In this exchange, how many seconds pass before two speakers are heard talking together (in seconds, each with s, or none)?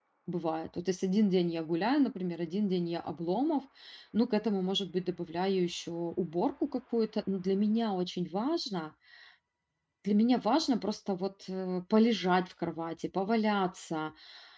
none